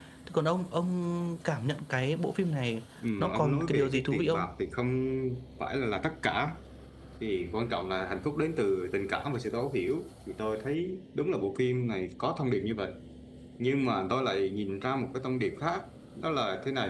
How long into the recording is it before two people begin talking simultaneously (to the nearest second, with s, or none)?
3 s